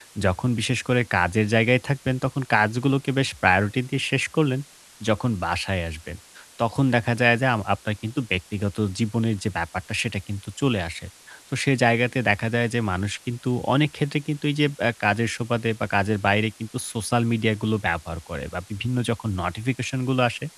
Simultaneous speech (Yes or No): No